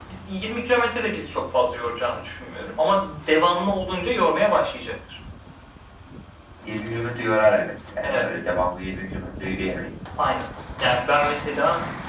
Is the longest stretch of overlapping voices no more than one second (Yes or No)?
Yes